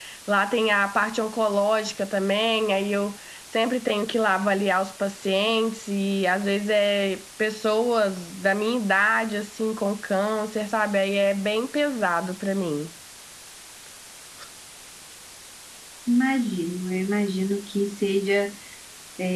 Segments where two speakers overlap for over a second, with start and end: none

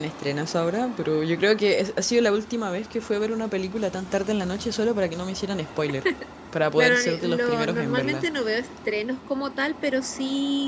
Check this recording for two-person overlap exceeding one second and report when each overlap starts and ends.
6.8-8.2

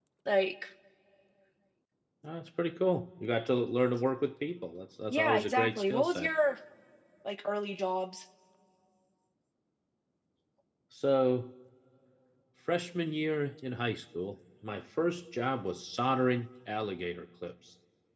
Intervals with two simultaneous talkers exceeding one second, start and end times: 5.1-6.3

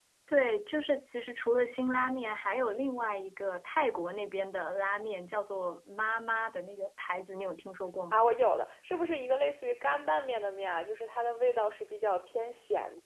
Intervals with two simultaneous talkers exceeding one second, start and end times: none

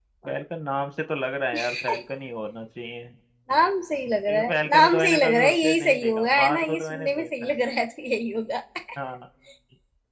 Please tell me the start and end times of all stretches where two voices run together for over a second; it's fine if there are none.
4.3-7.5

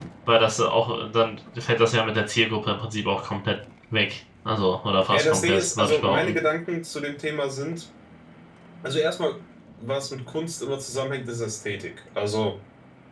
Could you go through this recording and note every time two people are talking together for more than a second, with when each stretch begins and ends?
5.1-6.4

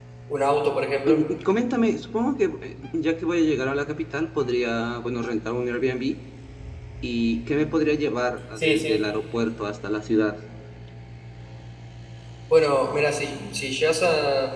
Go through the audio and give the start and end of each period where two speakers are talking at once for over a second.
none

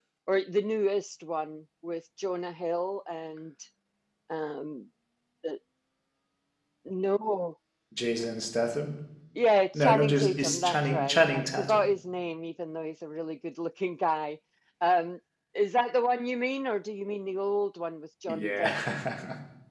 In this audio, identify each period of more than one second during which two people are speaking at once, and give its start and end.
9.7-11.8

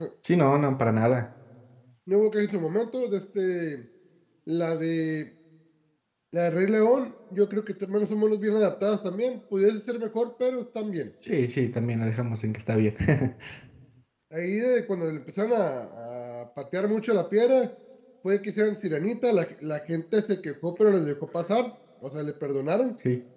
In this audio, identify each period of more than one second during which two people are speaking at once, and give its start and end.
none

